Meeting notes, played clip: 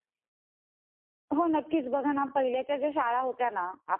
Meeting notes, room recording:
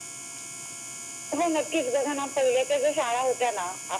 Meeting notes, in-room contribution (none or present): none